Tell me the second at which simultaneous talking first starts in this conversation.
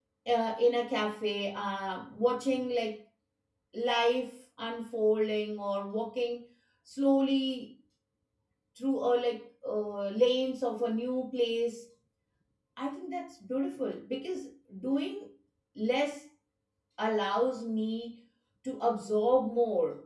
none

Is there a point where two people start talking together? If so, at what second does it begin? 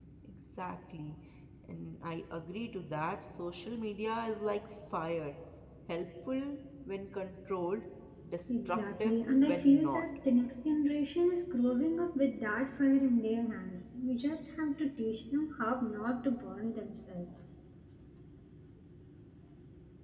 8.5 s

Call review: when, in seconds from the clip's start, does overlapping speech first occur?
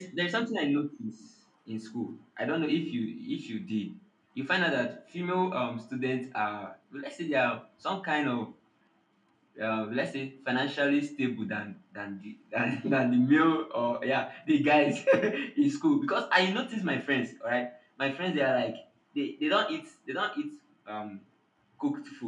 none

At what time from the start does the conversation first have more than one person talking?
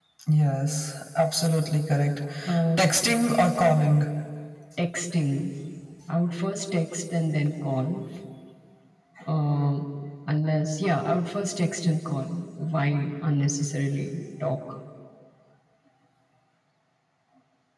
none

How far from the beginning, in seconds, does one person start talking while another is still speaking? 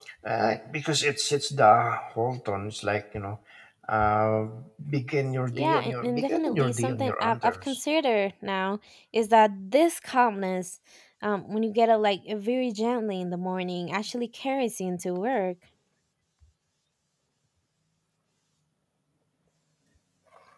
5.5 s

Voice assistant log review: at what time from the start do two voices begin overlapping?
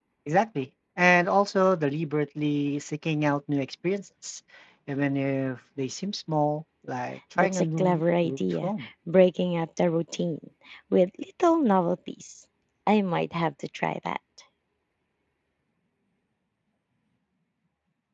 7.4 s

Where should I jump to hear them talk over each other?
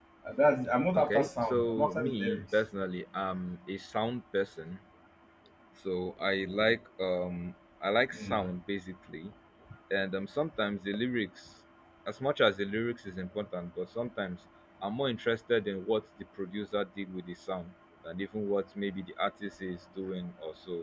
0.9 s

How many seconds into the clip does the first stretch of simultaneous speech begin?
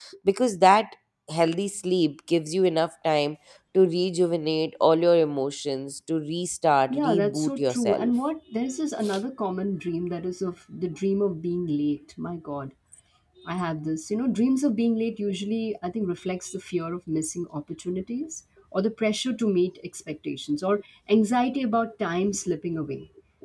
6.9 s

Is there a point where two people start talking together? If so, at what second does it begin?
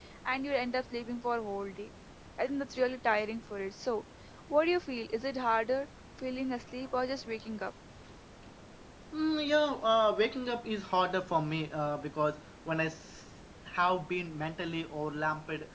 none

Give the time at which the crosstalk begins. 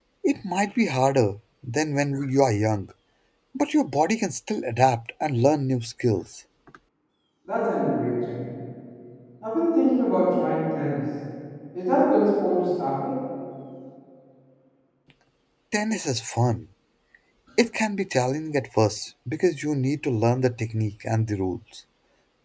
none

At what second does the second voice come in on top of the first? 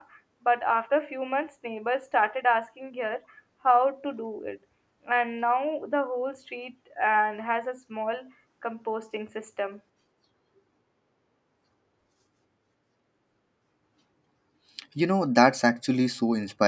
none

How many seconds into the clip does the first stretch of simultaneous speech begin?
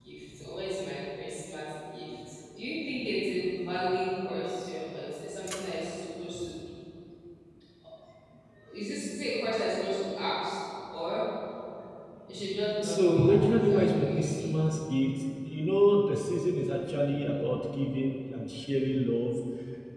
12.8 s

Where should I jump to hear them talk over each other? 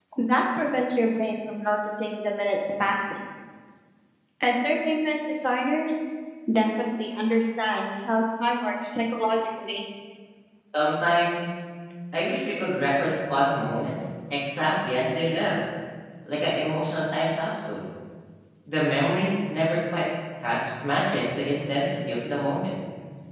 none

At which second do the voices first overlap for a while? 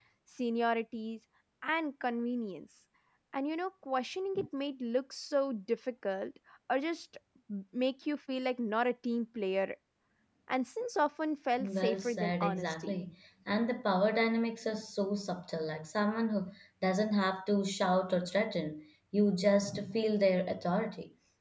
11.6 s

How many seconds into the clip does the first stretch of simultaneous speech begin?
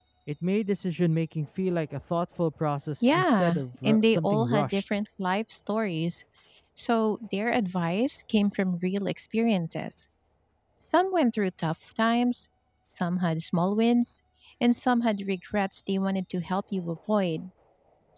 3.0 s

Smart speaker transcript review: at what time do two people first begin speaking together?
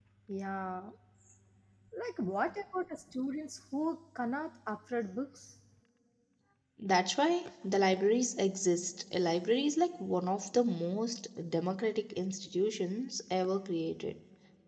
none

